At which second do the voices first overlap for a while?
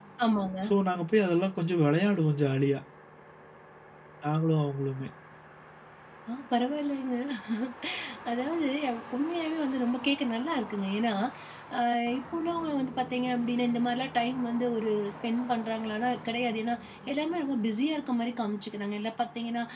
none

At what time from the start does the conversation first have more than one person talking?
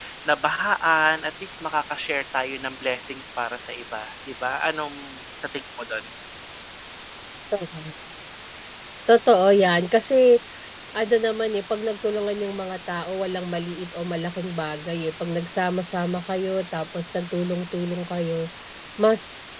none

